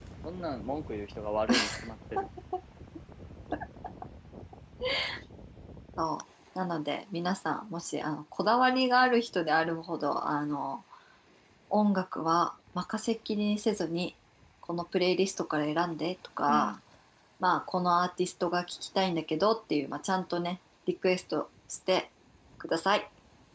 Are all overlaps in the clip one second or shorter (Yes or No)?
Yes